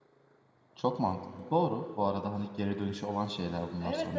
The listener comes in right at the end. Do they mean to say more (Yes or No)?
Yes